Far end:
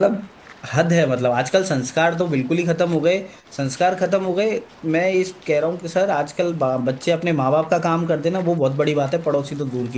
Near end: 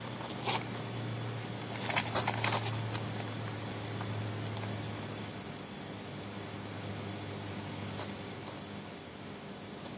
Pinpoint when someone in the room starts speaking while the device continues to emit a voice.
none

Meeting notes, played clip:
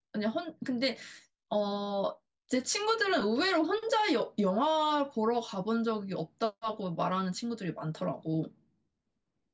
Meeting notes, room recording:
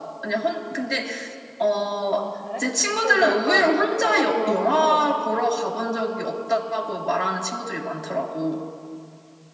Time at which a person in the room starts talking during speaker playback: 2.1 s

